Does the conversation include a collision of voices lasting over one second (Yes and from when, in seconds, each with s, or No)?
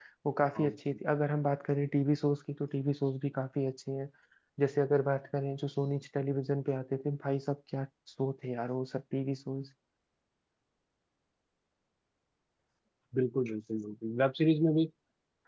No